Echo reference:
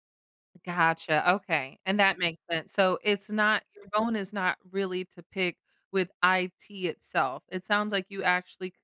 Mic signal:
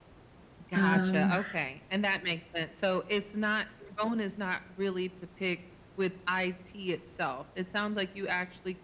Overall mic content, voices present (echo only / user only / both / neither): both